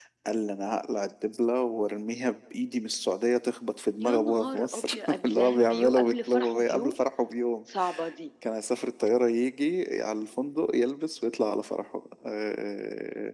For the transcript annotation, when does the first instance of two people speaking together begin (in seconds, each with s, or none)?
4.0 s